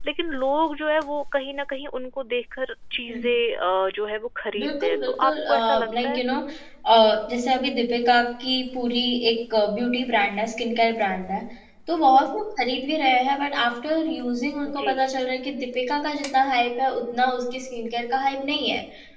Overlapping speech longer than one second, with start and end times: 4.6-6.2

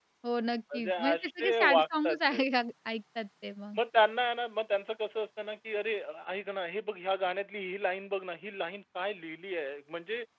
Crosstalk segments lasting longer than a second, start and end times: 0.7-2.3

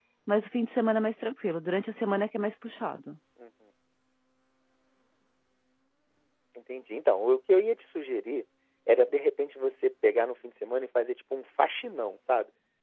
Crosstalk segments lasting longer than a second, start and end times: none

